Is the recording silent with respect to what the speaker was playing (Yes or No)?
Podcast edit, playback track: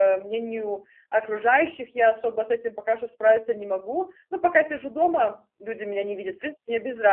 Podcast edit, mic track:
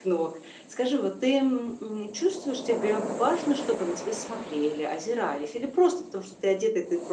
Yes